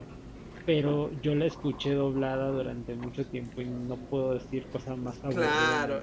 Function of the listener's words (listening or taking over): taking over